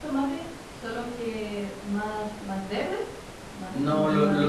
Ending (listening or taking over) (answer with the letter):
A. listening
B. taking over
B